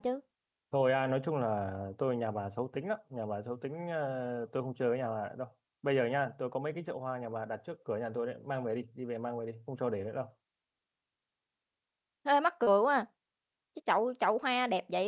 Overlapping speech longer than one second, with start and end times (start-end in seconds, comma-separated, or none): none